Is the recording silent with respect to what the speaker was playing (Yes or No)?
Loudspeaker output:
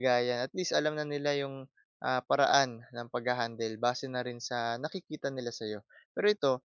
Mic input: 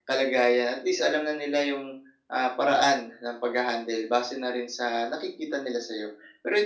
No